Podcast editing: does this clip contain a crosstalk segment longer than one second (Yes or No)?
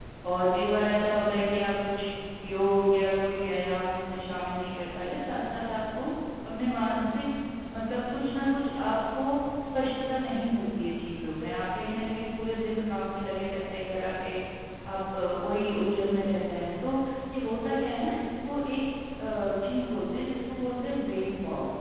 No